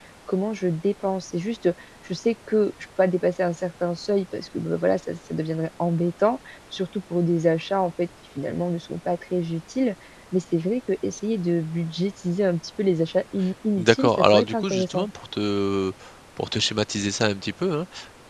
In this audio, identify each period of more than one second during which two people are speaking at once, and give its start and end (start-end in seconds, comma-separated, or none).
13.8-15.1